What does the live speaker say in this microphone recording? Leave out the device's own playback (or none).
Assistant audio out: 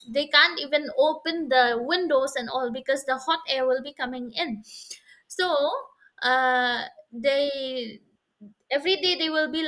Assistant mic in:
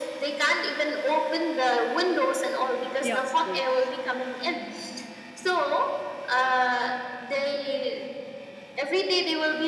yeah, of course.